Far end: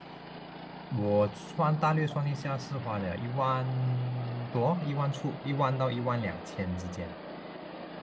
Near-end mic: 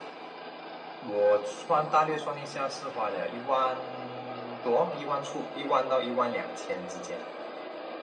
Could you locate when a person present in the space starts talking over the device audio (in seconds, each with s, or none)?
none